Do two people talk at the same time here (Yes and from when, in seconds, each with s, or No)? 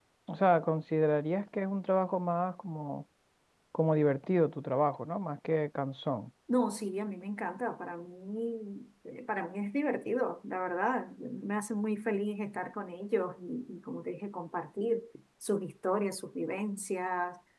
No